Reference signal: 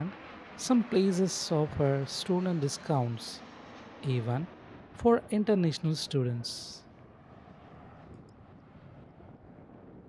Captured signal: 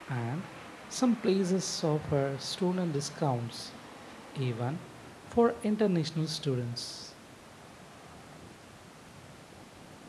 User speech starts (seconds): none

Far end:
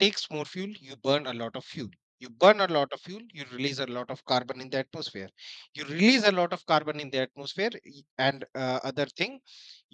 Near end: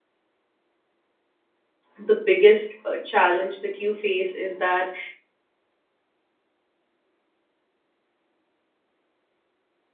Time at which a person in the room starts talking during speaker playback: 2 s

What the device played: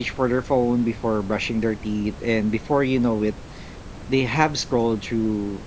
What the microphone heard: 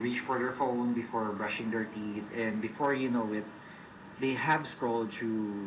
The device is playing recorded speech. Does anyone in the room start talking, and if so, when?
none

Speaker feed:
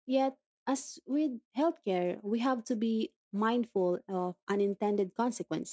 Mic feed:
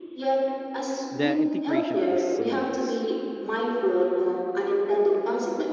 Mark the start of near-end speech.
1 s

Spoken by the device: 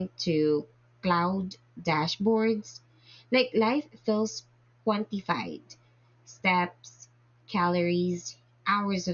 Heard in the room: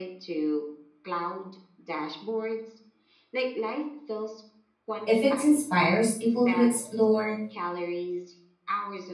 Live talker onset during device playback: 5 s

